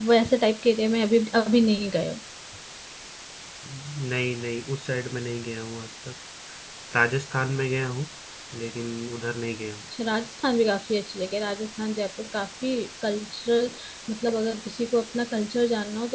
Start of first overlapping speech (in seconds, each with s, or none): none